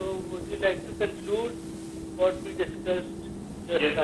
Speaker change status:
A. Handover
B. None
A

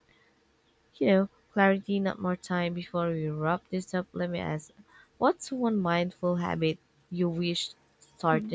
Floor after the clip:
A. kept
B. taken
B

